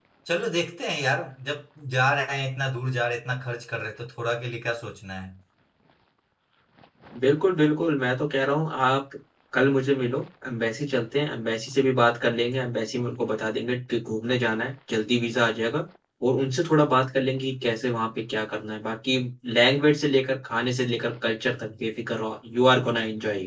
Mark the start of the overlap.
none

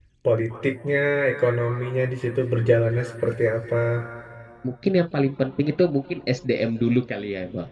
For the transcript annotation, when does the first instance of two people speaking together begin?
none

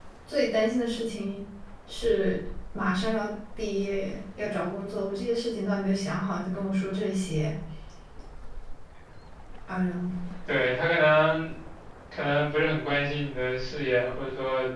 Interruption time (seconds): none

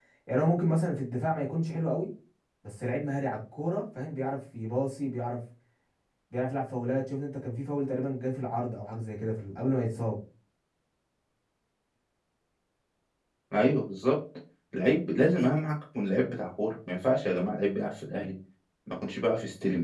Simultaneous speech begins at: none

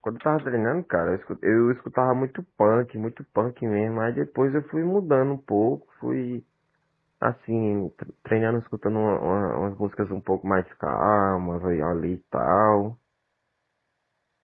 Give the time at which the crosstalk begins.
none

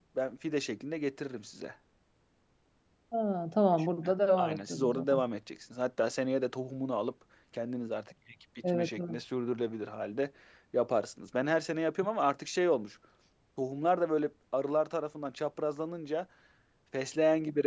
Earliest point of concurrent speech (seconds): 4 s

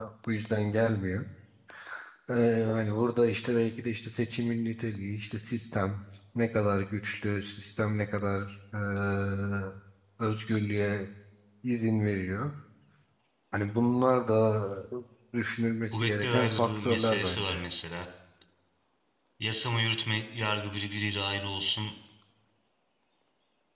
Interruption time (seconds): 16 s

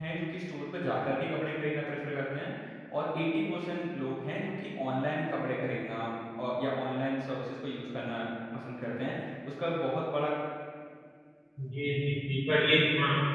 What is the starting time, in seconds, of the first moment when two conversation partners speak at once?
none

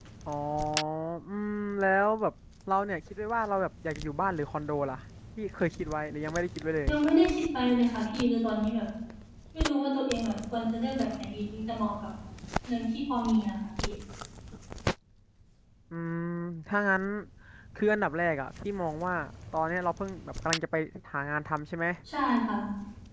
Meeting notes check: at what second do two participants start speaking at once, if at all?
none

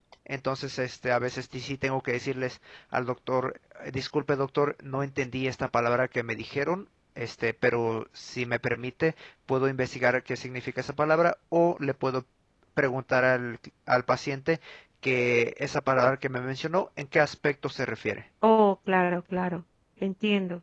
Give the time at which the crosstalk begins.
none

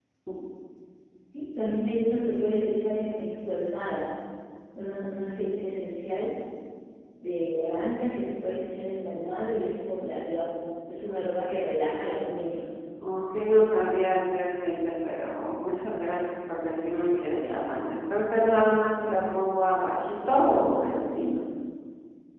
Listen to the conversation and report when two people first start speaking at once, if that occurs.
none

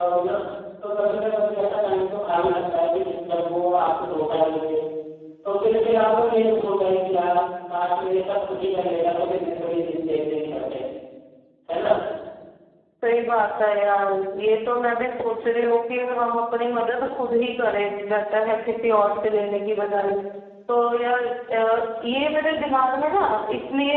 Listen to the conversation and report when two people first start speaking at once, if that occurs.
none

